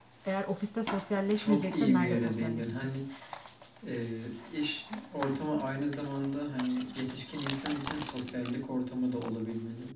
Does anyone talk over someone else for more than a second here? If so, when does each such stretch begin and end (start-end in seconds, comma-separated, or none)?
1.3-2.9